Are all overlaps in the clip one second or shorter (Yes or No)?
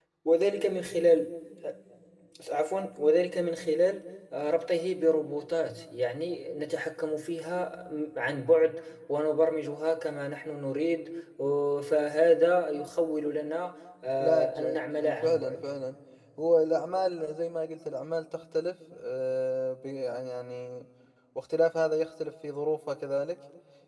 No